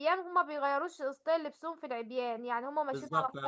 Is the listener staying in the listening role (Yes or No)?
No